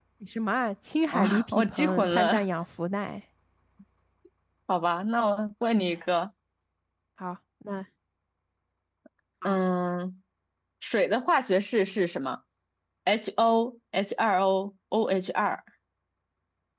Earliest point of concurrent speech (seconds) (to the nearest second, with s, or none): 1 s